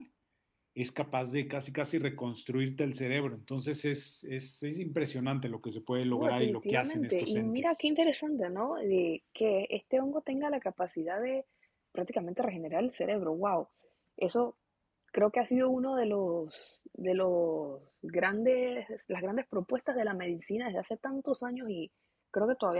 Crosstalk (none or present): present